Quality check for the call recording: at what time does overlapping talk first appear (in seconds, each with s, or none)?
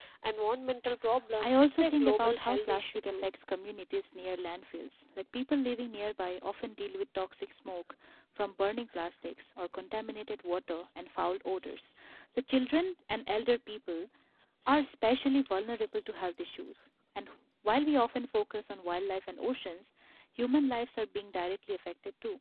1.4 s